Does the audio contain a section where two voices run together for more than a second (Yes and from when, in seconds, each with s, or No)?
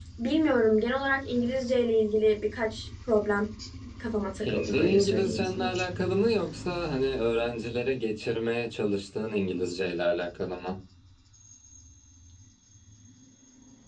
Yes, from 4.4 s